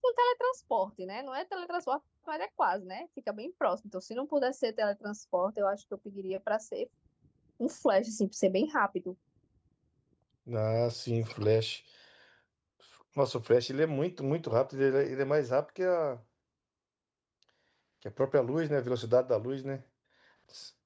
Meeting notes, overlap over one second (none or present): none